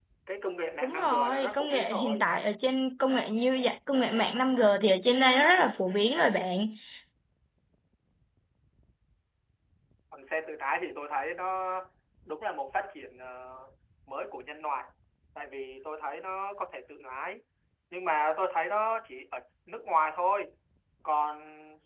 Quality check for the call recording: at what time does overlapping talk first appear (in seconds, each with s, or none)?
0.8 s